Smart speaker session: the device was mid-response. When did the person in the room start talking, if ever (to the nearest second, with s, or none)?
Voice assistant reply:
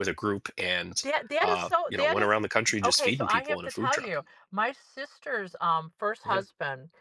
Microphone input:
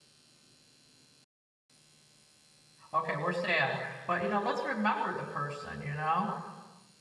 3 s